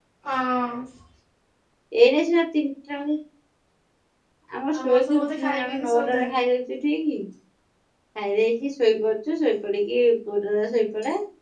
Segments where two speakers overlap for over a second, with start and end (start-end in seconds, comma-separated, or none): 4.8-6.4